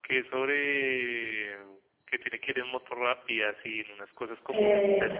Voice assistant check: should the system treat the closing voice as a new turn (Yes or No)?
No